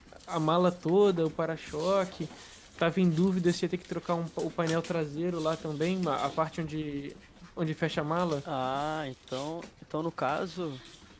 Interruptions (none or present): none